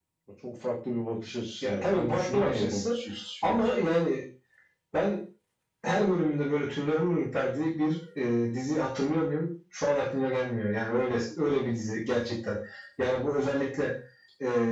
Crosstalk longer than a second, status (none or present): present